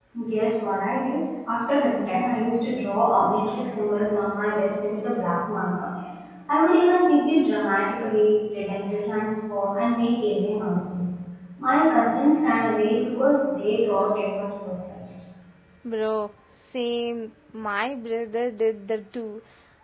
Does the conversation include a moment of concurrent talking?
No

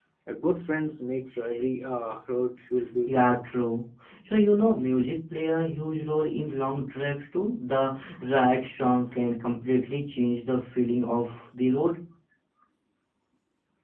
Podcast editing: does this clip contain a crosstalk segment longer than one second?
No

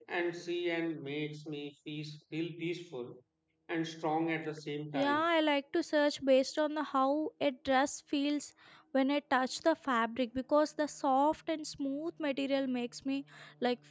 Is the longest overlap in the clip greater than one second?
No

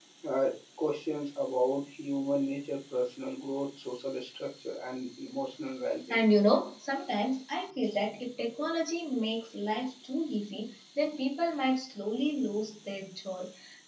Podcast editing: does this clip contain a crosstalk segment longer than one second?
No

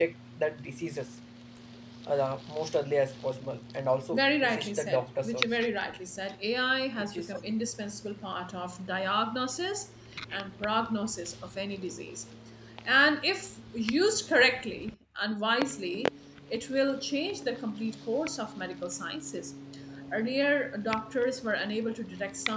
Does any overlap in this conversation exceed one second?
Yes, from 4.1 s

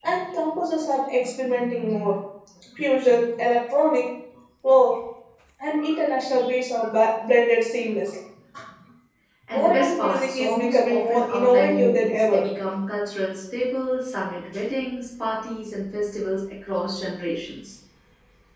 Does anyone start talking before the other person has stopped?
Yes, from 9.5 s

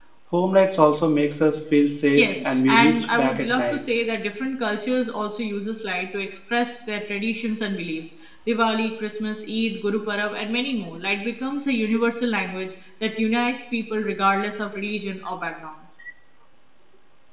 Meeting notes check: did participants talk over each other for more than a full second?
Yes, from 2.2 s

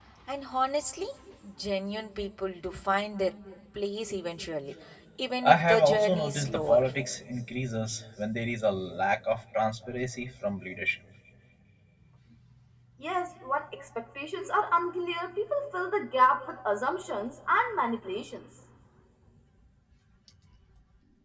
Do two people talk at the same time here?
Yes, from 5.4 s

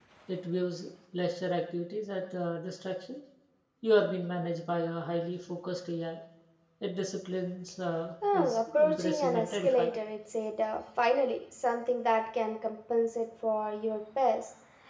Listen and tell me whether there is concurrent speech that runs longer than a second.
Yes, from 8.2 s

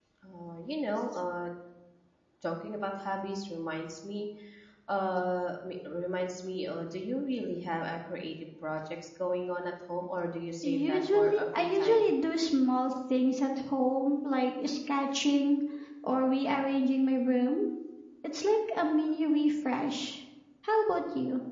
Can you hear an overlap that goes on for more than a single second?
Yes, from 10.6 s

